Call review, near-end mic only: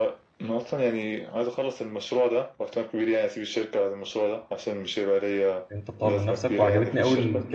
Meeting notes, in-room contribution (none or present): present